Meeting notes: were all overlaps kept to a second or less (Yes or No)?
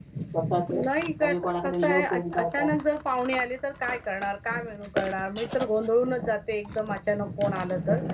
No